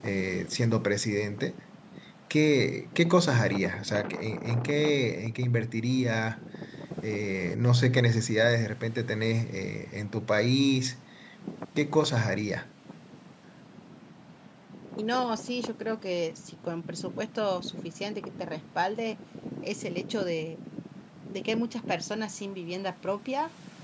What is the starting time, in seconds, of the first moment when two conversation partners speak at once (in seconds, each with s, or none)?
none